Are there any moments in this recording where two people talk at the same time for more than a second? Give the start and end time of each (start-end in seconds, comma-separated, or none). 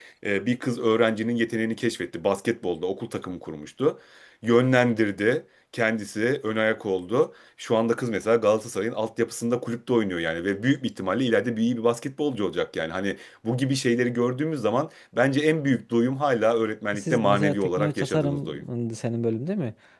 17.0-18.6